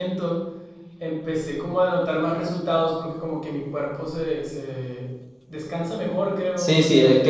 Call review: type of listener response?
taking over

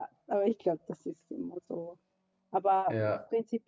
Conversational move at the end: listening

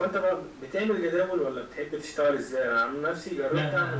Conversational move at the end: listening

